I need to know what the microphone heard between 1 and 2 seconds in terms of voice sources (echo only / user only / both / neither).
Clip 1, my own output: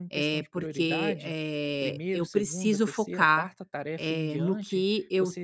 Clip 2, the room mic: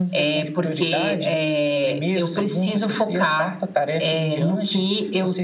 echo only